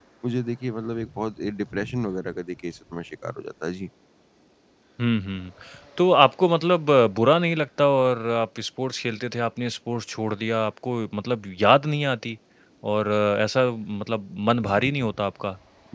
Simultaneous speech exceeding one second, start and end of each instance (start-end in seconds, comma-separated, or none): none